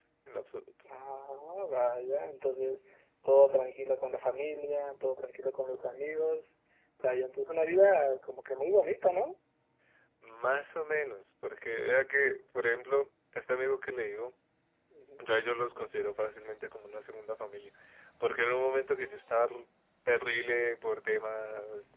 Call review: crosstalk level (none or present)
none